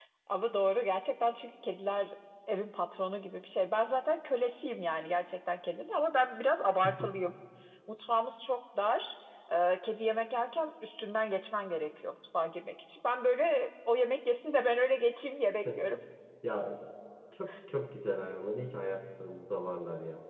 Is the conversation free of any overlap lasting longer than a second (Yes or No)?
Yes